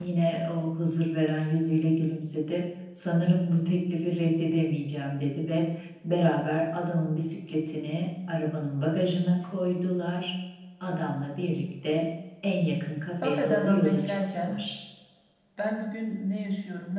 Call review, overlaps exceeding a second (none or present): present